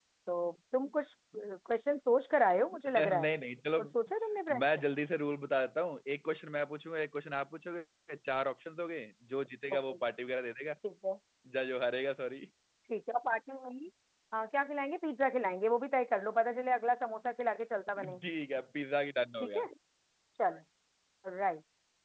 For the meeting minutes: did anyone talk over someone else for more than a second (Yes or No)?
No